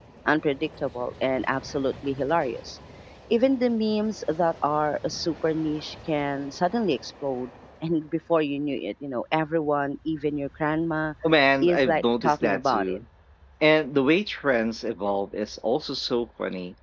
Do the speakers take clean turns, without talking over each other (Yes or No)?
No